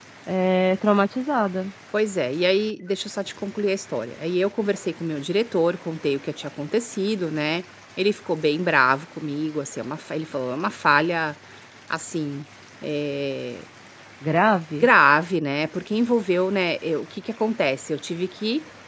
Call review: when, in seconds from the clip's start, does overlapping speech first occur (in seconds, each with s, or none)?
none